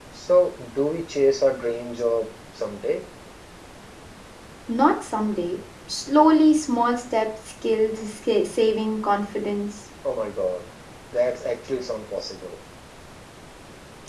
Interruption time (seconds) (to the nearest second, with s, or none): none